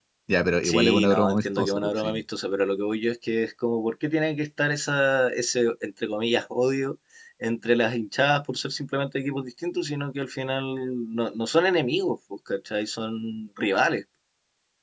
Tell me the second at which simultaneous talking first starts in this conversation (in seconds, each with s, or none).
0.6 s